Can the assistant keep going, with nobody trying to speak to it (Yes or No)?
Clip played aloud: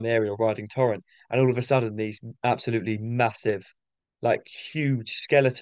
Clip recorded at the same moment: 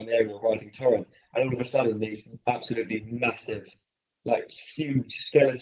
Yes